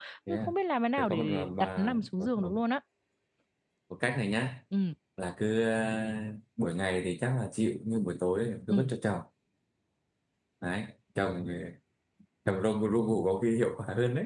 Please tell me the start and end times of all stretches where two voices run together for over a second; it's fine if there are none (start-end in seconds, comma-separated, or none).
1.0-2.5